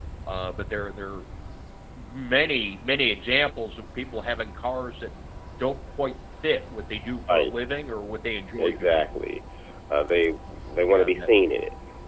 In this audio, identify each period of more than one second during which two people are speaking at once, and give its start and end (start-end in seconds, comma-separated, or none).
none